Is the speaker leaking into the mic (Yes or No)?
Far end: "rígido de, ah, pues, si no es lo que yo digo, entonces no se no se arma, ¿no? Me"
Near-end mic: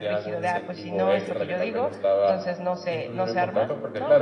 Yes